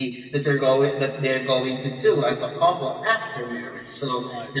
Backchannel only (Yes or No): Yes